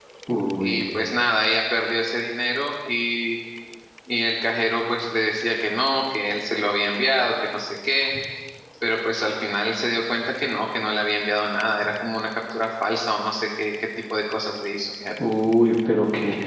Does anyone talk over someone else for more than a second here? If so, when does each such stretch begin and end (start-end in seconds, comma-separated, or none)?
none